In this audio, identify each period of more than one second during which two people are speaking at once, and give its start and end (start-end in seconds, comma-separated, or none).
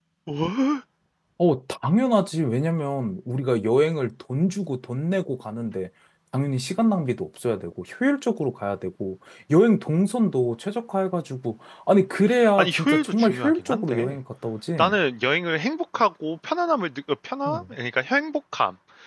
12.6-14.2